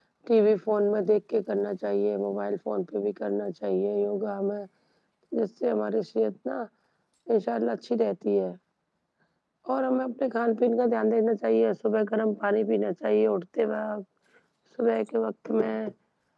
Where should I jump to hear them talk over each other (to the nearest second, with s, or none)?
none